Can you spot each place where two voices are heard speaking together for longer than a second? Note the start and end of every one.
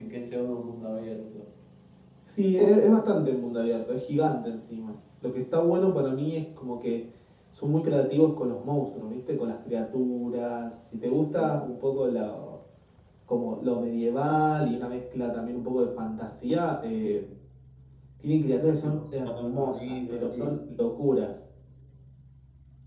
18.8-20.6

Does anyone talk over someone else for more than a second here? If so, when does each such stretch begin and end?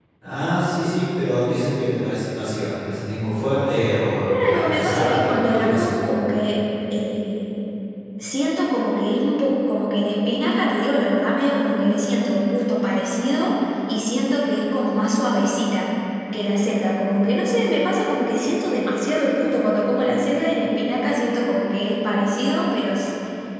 4.5-5.8

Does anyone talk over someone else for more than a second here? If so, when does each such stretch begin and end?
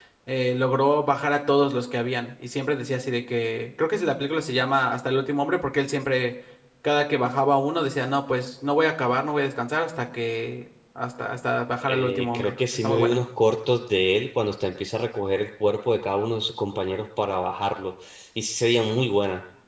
11.8-13.2

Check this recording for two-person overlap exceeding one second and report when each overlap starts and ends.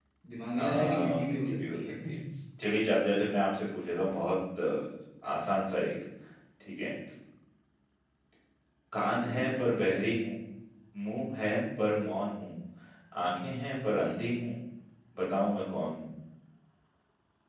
0.6-1.9

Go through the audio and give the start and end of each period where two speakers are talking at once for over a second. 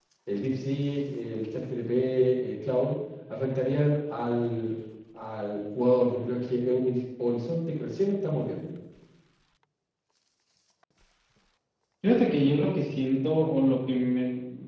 none

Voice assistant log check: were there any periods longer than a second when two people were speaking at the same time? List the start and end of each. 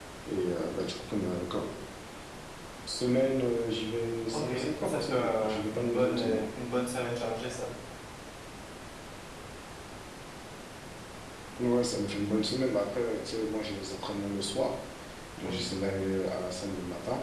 4.3-6.4

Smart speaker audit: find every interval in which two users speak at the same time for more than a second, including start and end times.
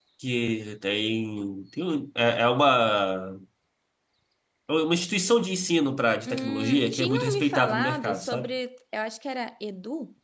6.3-8.5

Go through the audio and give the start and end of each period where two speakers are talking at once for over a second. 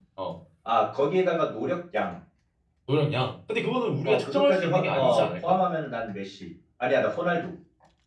4.0-5.6

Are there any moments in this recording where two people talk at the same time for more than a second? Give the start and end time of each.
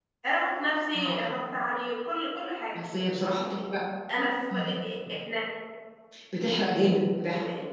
none

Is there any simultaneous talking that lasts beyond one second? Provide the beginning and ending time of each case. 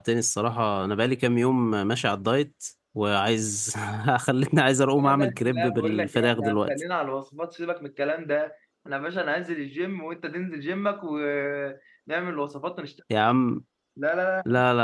5.0-6.7

